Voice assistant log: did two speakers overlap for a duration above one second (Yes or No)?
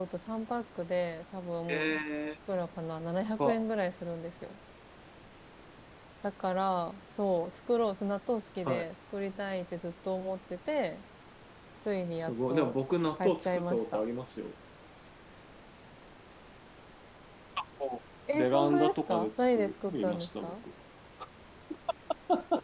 Yes